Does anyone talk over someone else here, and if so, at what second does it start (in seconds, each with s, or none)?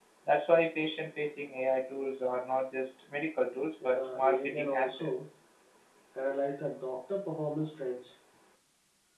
3.8 s